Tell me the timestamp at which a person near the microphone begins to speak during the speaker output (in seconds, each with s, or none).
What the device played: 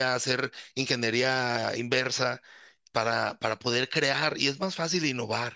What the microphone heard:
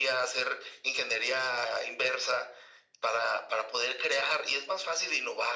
none